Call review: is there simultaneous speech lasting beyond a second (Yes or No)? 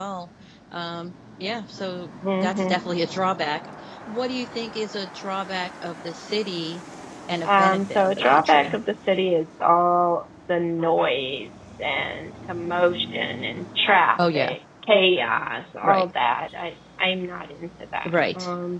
Yes